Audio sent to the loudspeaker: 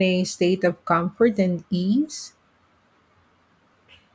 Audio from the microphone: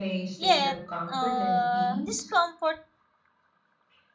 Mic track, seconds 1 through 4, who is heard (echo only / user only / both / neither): both